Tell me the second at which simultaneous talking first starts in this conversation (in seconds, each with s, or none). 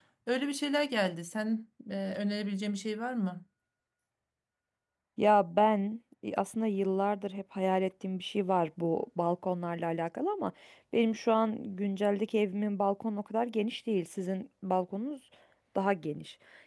none